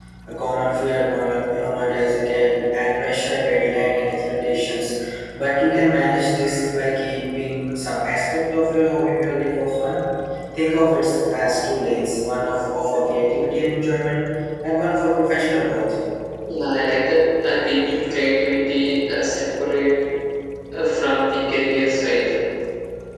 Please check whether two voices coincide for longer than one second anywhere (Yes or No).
No